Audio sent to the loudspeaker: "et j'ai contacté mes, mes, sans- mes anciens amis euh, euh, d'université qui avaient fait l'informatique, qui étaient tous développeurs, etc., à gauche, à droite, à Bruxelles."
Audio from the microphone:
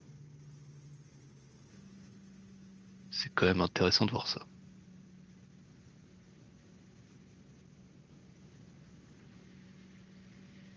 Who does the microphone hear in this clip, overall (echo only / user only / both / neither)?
user only